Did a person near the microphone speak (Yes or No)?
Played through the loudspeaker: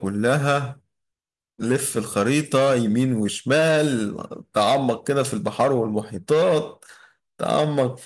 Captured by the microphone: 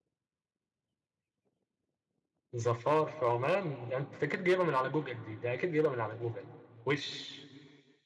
Yes